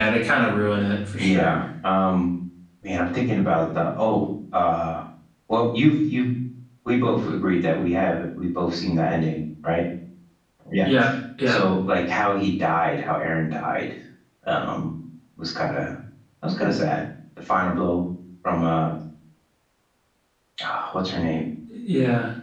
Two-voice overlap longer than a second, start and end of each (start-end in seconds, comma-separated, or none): none